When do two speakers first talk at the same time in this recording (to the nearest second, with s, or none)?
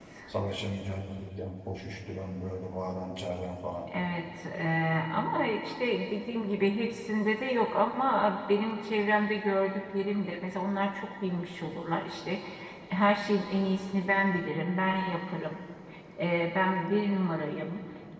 none